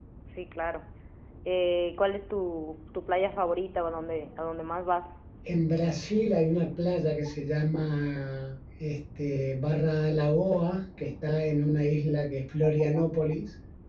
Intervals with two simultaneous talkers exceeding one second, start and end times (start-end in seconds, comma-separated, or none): none